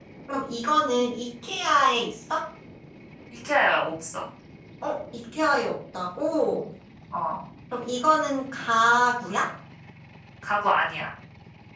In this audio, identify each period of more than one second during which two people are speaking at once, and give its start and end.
none

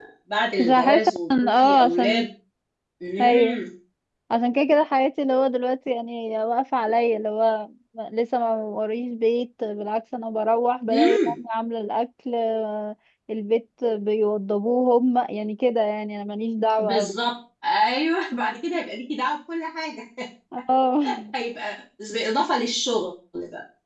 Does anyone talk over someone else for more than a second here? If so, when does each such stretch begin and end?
0.6-2.3

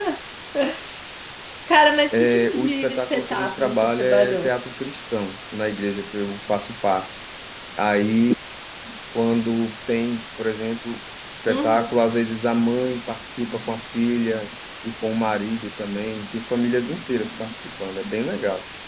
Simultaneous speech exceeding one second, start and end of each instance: 2.1-4.5

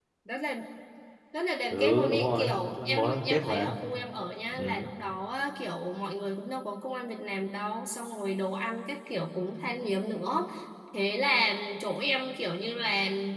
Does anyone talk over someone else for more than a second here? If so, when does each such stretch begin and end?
1.7-3.8

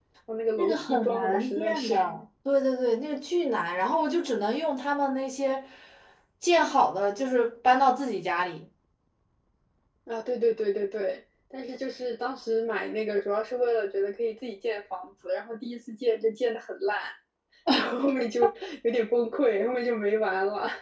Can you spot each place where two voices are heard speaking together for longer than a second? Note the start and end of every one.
0.6-1.9

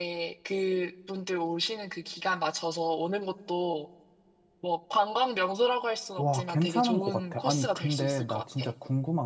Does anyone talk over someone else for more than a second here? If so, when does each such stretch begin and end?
6.2-8.4

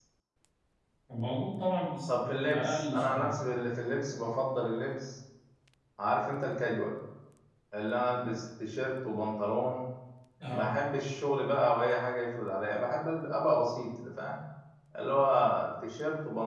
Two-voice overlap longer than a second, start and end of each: 2.1-3.3

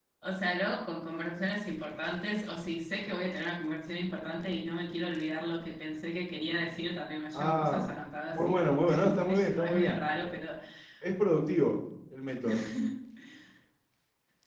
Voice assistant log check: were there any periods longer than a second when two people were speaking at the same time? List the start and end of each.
8.3-10.0

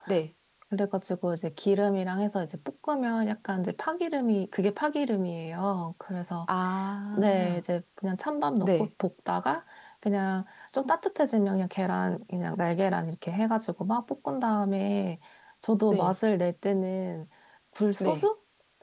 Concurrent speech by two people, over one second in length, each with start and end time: none

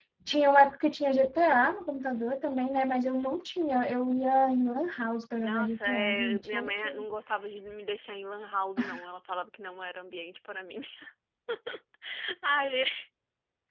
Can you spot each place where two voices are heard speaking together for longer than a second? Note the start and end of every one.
5.4-6.9

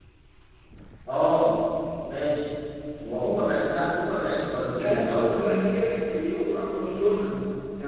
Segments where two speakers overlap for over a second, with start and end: none

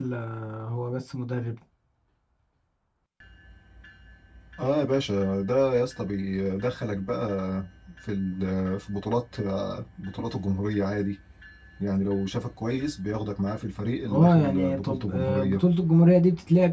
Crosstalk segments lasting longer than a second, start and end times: 14.1-15.6

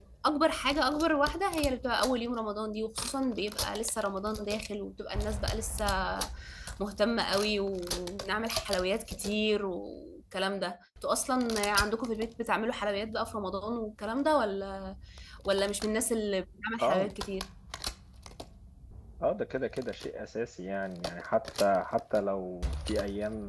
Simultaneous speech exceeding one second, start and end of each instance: none

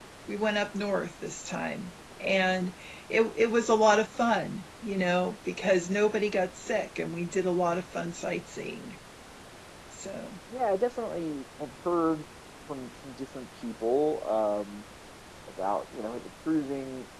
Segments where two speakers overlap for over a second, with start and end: none

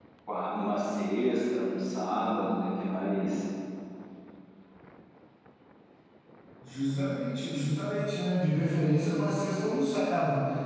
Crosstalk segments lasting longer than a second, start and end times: none

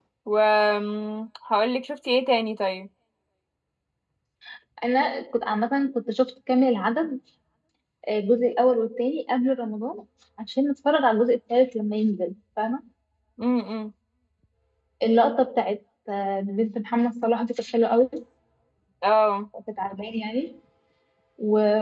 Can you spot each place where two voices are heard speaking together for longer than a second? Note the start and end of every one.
none

